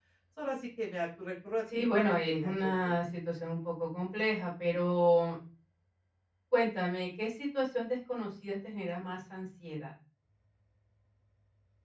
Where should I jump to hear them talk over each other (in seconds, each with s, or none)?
1.7 s